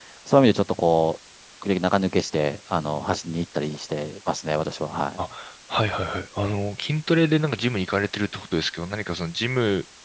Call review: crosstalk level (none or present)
none